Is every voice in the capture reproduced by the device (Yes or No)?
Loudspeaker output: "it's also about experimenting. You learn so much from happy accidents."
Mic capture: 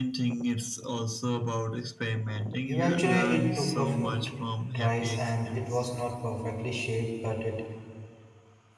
No